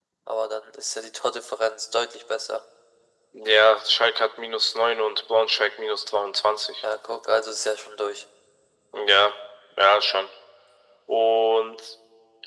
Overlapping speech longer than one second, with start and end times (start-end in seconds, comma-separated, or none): none